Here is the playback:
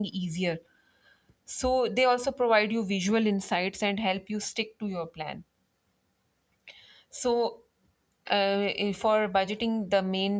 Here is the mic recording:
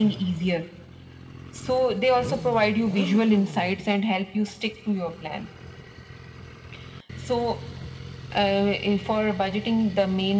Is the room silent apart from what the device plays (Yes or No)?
Yes